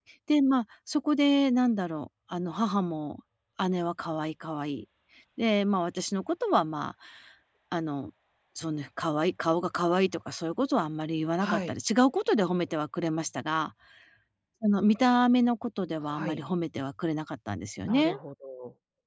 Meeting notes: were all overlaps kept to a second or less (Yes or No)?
Yes